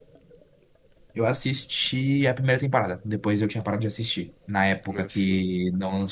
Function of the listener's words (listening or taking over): listening